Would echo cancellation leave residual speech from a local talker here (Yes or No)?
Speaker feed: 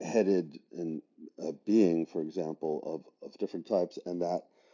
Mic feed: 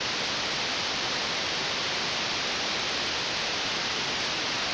No